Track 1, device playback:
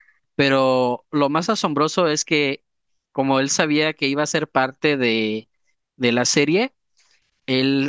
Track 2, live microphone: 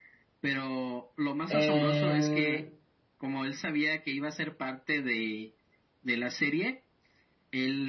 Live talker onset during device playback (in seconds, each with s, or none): 1.5 s